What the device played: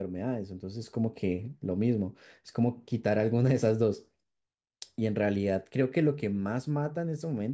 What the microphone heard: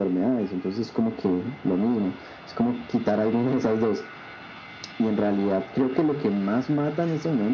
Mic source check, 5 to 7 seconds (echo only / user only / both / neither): echo only